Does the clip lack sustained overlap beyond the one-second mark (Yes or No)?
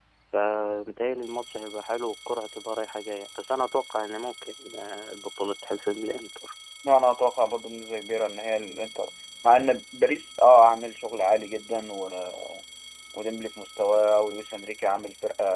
Yes